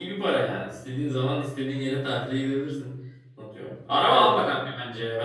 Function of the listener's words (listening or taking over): listening